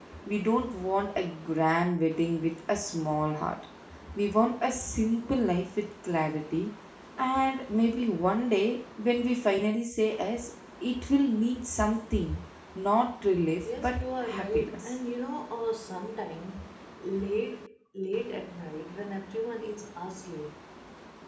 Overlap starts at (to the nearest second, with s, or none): 14 s